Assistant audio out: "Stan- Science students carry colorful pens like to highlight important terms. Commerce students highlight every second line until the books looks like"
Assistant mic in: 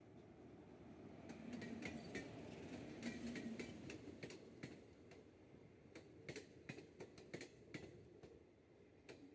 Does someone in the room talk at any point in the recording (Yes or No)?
No